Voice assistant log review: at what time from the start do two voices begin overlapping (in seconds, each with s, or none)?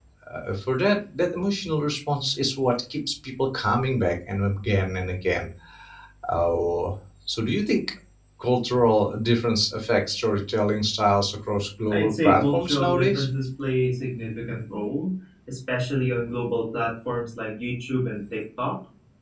11.9 s